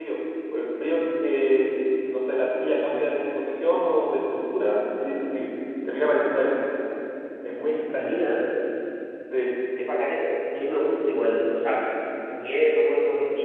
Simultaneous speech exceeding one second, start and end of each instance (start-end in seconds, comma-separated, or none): none